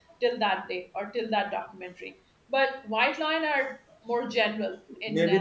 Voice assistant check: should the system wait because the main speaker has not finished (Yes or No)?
No